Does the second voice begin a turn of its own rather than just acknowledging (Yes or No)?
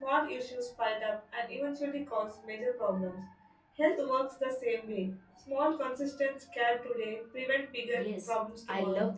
Yes